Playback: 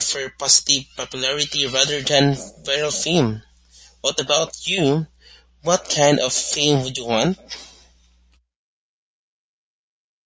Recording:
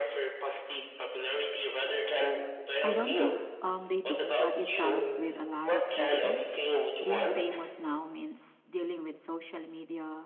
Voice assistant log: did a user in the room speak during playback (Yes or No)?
Yes